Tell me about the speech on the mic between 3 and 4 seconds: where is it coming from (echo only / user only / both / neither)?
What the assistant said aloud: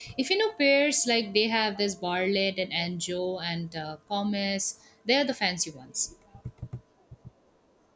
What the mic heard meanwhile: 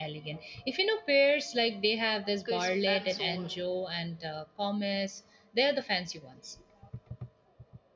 both